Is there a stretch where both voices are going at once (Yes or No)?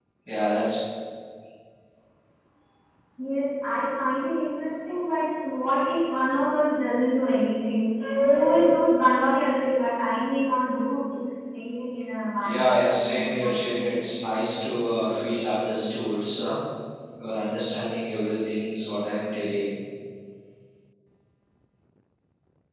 Yes